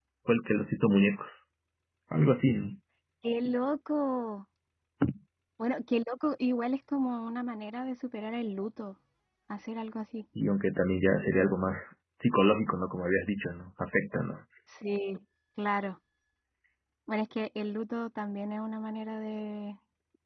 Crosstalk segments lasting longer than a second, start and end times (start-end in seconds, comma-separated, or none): none